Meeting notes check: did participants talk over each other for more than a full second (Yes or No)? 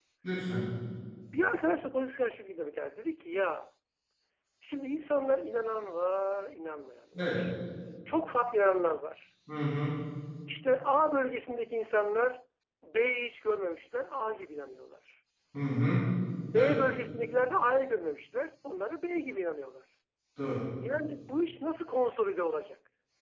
No